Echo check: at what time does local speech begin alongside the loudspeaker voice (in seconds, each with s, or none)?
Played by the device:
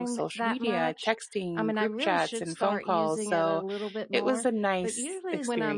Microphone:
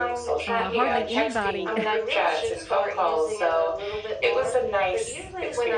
0.5 s